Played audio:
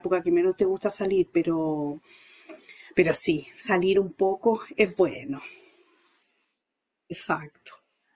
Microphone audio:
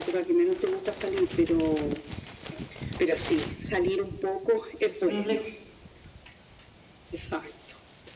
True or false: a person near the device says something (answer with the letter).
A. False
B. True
B